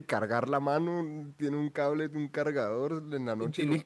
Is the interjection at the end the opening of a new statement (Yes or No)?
Yes